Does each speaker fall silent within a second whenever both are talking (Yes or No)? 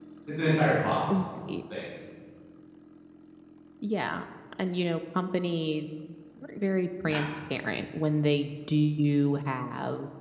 Yes